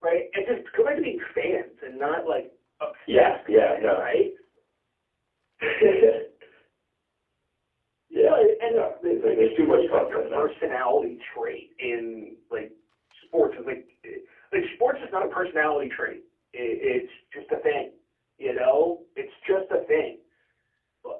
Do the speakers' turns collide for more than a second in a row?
Yes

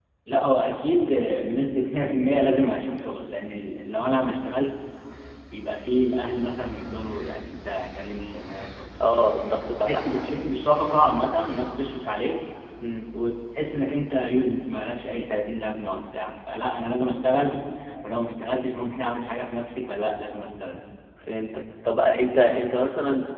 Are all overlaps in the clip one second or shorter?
Yes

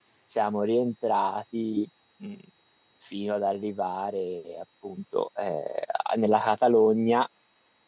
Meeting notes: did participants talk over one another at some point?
No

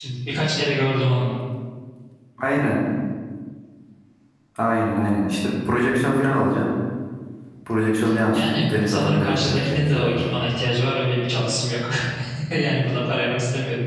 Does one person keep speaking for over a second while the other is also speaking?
Yes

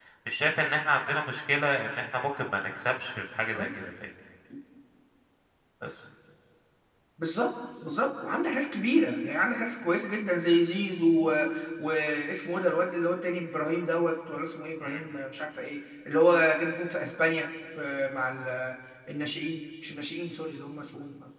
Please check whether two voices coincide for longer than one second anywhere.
No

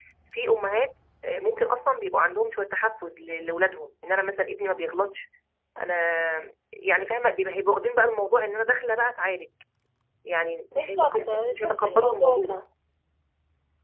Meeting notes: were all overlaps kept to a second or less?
No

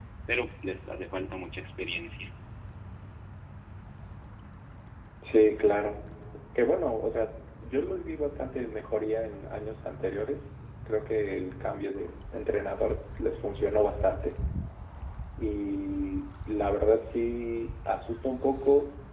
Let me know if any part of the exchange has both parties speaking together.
No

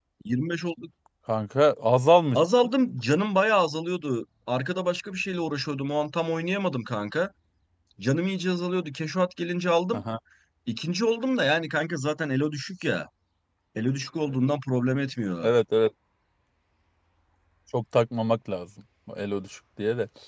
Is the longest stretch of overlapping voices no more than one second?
Yes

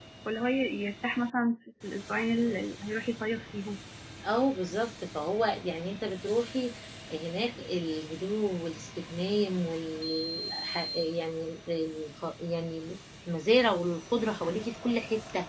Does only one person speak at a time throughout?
Yes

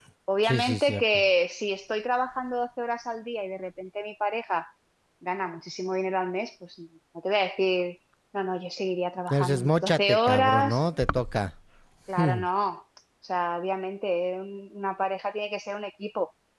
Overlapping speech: Yes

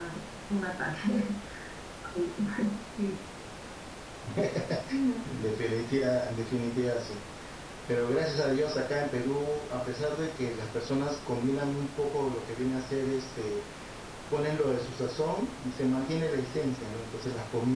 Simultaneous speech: No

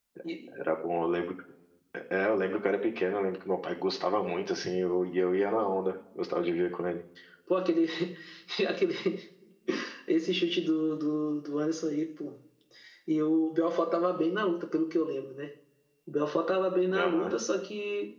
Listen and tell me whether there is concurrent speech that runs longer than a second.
No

